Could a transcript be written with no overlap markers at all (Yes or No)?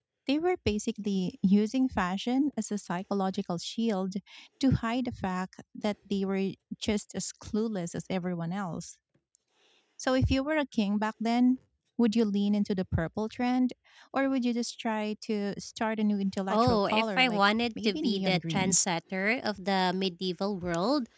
No